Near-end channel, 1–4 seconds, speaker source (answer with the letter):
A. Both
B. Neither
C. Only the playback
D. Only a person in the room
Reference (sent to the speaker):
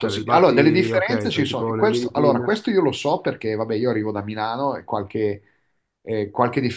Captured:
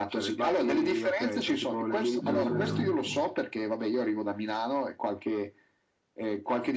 A